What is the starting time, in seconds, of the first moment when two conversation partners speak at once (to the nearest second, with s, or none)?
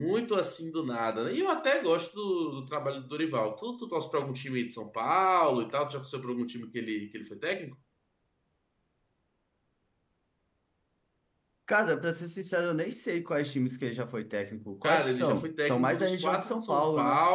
15 s